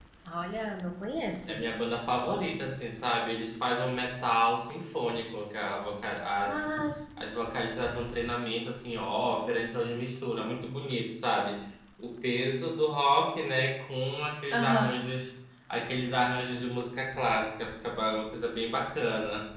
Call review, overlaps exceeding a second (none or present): none